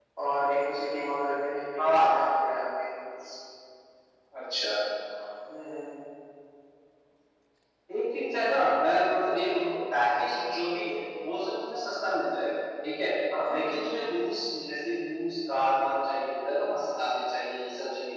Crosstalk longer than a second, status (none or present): none